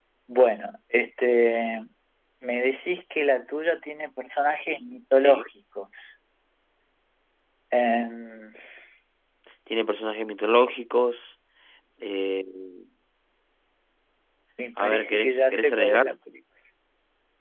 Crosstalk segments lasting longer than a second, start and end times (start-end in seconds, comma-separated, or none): 14.8-16.1